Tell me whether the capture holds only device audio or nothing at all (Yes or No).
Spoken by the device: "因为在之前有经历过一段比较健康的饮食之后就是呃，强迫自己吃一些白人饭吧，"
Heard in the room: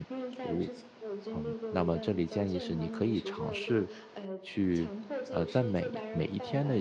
No